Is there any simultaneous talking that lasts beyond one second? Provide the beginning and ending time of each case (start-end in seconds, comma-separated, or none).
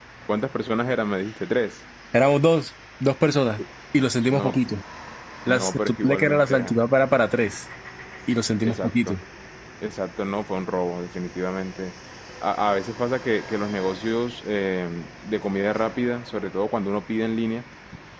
5.5-6.8